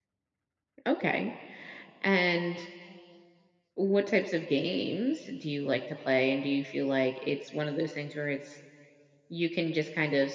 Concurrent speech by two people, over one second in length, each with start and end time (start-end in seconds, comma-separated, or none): none